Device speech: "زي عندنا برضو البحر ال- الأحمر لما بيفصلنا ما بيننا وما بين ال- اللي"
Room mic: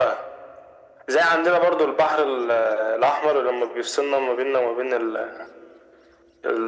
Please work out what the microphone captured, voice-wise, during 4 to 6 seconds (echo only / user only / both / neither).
echo only